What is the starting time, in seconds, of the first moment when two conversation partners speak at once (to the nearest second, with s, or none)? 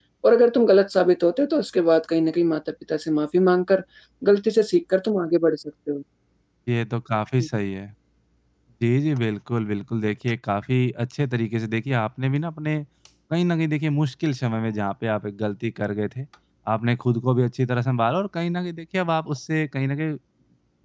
none